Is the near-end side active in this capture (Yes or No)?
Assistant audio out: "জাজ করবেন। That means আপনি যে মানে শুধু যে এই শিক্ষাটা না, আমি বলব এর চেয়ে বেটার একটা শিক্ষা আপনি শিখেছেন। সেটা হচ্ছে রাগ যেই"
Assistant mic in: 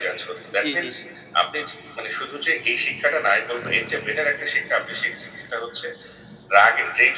Yes